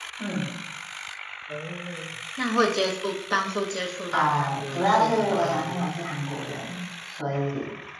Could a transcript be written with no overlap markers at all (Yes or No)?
No